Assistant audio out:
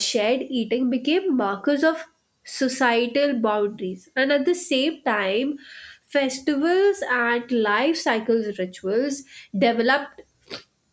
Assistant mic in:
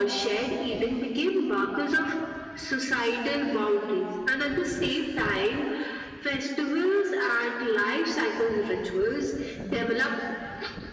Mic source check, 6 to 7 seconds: echo only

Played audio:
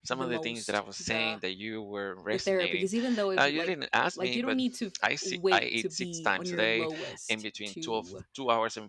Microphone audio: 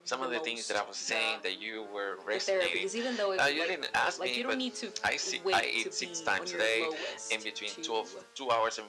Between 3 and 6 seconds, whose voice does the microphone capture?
echo only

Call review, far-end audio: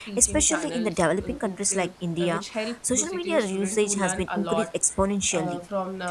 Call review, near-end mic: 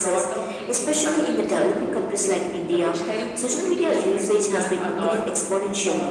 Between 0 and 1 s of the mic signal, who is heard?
echo only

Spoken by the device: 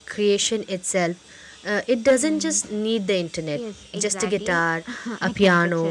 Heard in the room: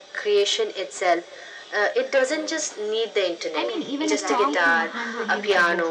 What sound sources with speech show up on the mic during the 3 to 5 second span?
both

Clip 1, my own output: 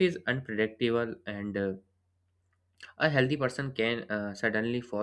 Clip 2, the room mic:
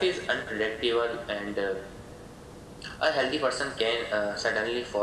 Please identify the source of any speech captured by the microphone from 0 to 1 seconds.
echo only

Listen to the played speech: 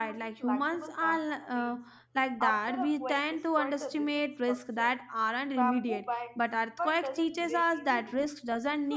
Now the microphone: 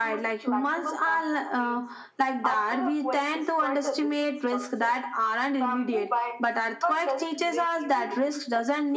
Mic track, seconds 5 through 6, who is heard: echo only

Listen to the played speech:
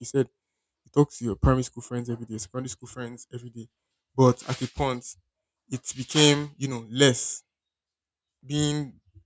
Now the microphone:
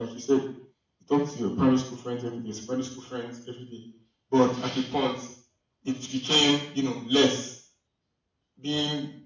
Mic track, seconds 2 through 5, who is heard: echo only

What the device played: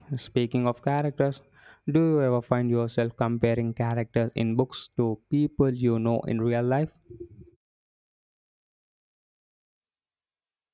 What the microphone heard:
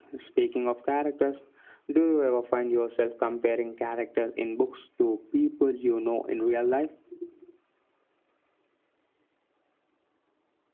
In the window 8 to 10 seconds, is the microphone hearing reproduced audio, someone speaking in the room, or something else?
neither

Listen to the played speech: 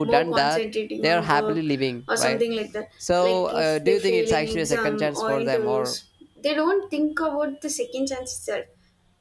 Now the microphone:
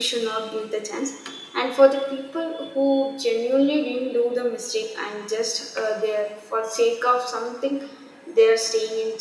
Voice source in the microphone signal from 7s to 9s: user only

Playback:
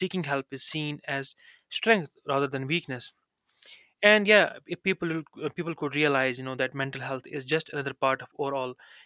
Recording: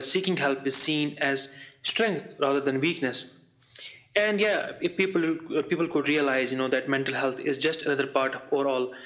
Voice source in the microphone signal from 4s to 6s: echo only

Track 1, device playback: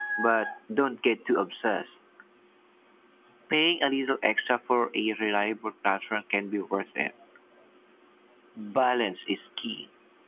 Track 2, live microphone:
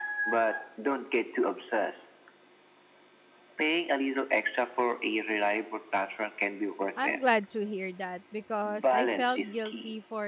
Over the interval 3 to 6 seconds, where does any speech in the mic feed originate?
echo only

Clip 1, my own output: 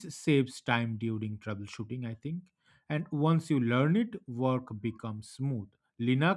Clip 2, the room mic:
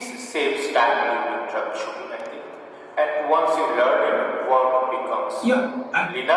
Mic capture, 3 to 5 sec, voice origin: echo only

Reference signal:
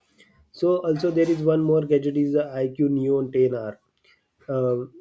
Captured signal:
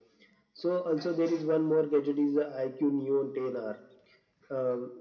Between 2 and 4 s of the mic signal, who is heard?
echo only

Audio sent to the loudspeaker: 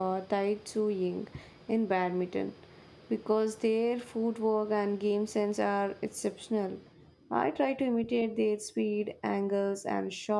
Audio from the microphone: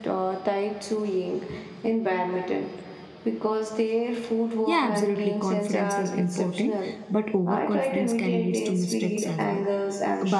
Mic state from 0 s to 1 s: echo only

